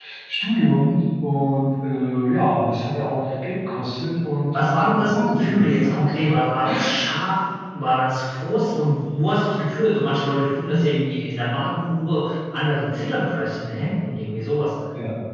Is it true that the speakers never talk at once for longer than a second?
No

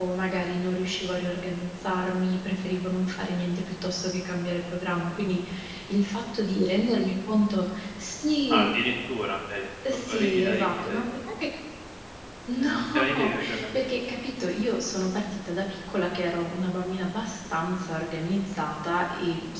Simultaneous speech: Yes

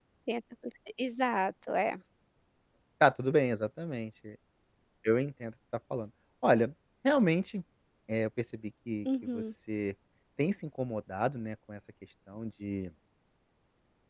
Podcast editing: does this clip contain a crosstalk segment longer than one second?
No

